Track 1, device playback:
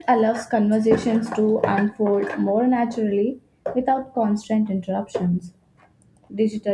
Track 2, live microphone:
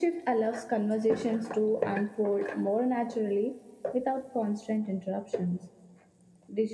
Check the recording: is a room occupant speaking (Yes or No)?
No